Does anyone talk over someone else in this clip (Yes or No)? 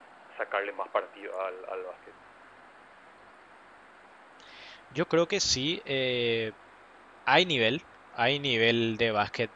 No